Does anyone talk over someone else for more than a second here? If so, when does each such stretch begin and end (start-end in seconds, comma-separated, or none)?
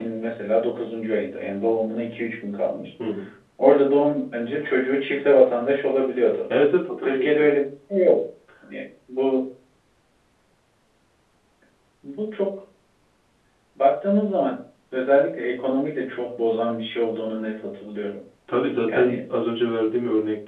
none